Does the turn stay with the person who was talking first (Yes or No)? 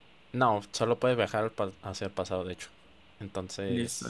No